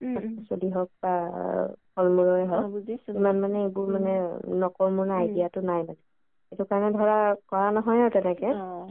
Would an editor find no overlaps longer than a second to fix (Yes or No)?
Yes